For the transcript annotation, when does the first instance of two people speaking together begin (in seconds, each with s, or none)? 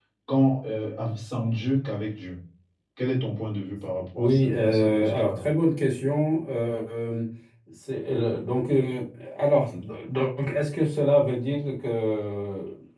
4.1 s